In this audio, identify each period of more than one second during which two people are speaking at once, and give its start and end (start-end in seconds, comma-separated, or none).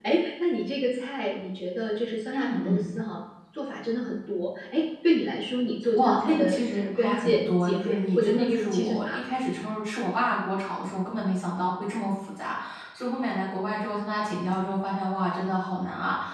5.9-9.2